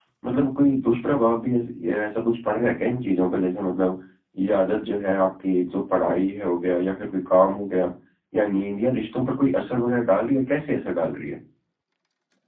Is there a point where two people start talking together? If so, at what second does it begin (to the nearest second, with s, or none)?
none